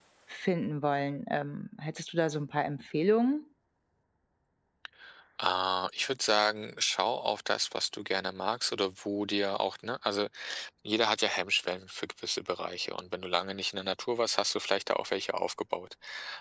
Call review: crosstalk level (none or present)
none